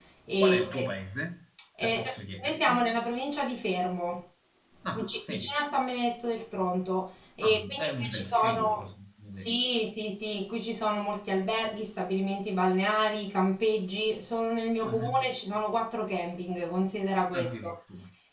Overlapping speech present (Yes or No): Yes